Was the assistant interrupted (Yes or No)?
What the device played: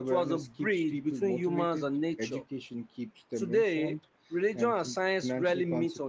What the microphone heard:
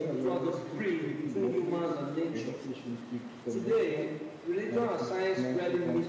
No